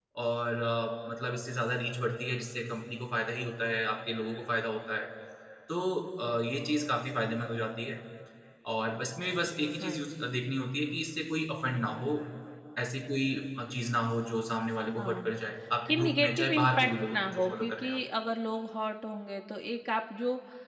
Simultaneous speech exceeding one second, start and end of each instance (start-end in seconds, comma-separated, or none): 15.9-18.0